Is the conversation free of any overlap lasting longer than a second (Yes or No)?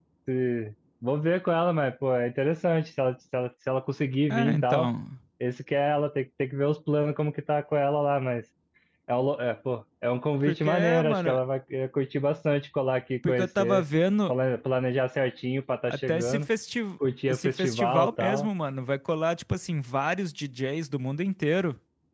No